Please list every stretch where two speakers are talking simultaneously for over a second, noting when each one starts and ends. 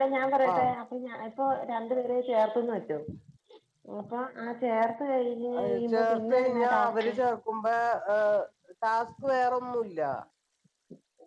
5.6-7.1

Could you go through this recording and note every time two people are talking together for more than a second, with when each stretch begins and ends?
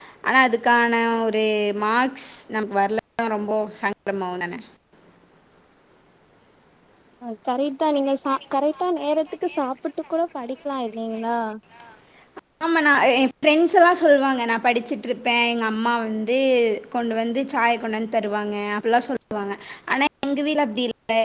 none

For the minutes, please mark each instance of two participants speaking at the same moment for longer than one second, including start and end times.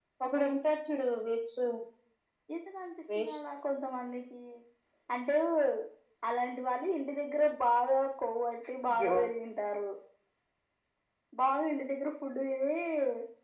none

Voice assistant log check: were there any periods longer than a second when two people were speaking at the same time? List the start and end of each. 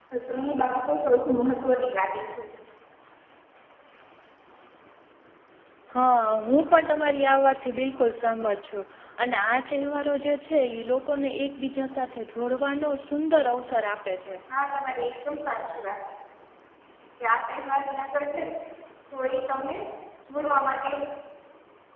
none

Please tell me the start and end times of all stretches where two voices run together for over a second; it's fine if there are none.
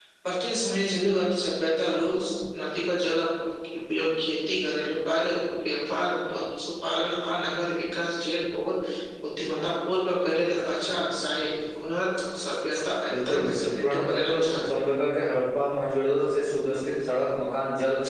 13.1-14.7

